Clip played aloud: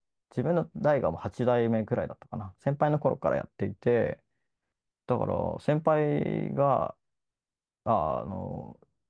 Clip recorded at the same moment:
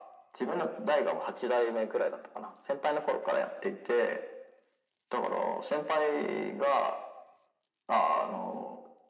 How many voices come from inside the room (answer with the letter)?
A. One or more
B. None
B